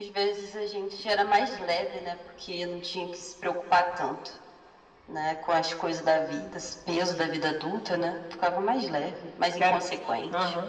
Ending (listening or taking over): taking over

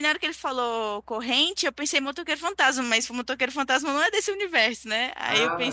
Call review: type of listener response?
listening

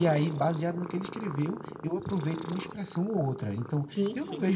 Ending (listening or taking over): listening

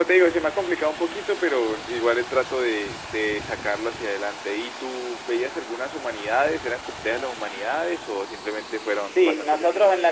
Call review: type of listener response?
taking over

